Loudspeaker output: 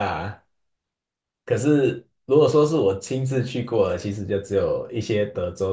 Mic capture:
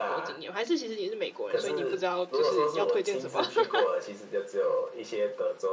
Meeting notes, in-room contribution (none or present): present